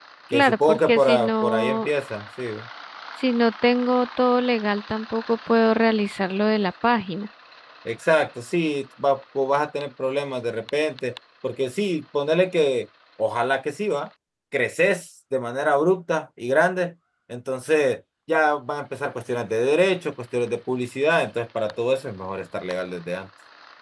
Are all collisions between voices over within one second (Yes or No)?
No